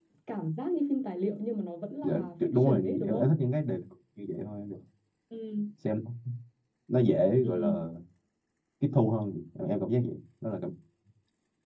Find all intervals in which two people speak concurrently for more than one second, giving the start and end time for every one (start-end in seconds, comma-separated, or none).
2.0-3.3